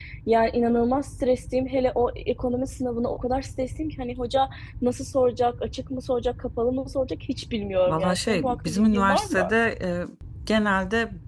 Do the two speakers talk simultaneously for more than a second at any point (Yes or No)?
Yes